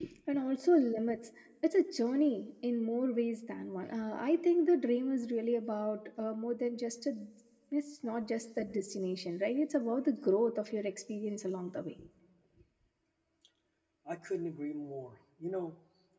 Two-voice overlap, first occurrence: none

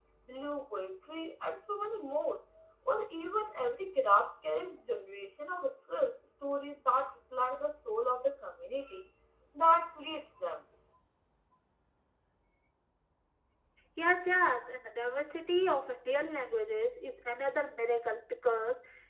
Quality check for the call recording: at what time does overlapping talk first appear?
none

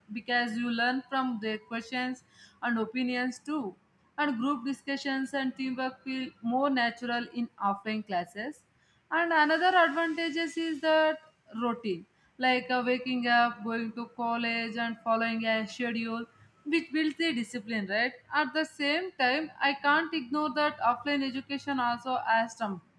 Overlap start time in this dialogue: none

